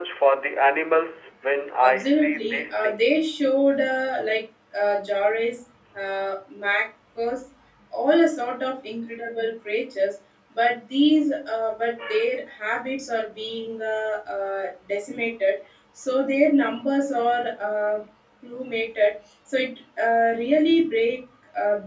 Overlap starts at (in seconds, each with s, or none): 1.8 s